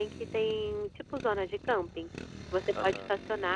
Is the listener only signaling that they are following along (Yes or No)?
Yes